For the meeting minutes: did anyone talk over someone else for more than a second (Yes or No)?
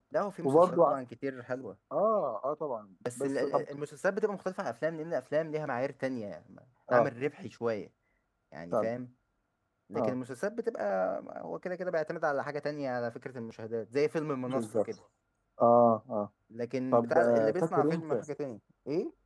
Yes